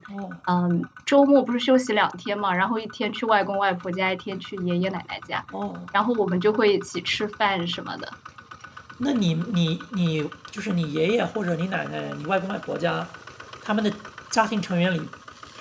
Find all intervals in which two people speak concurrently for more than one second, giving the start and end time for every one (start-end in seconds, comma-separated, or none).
none